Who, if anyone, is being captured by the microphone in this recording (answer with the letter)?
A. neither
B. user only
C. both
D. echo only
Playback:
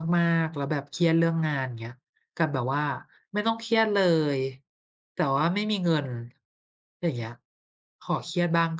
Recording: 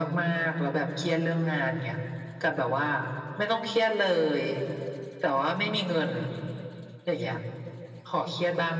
D